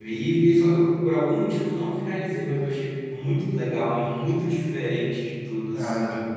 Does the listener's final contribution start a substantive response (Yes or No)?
No